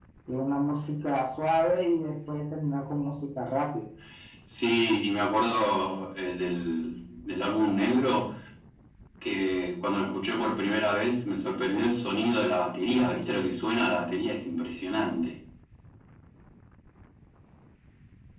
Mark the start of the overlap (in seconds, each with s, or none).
none